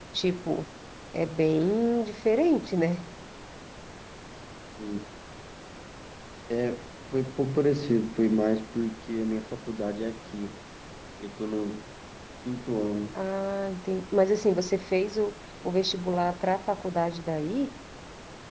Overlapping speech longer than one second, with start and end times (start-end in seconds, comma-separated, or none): none